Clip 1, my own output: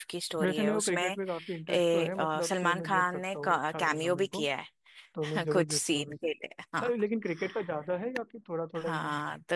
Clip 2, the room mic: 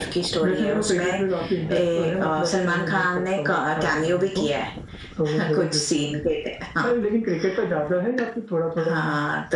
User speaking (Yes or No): No